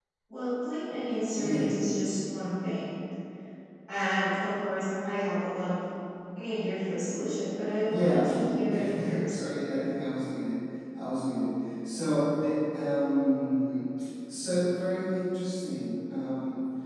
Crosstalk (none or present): present